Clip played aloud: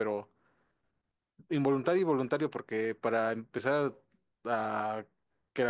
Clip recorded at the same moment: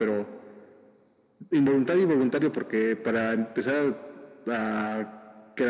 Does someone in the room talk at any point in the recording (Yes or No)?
No